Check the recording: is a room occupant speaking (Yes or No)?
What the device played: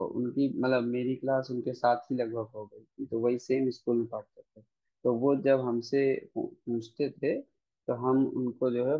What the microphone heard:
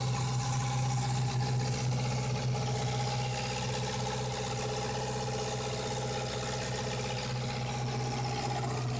No